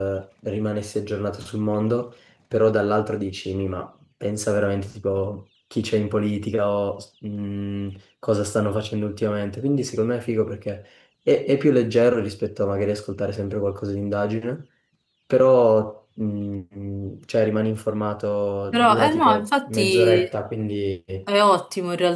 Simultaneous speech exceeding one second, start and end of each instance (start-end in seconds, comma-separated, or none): 18.7-20.3